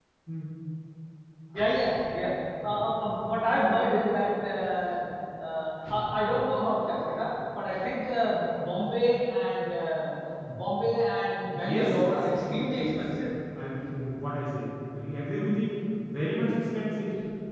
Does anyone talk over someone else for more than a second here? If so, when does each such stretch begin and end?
11.5-13.0

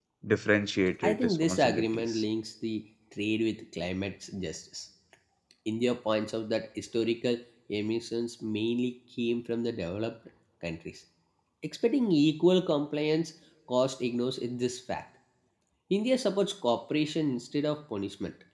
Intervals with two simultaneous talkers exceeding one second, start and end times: 1.0-2.2

